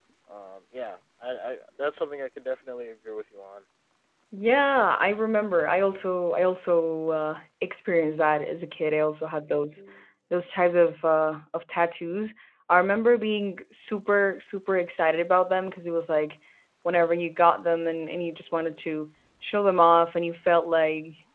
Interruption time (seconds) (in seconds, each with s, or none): none